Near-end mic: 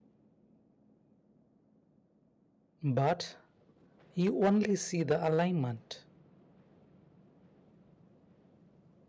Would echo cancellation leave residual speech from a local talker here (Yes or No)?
Yes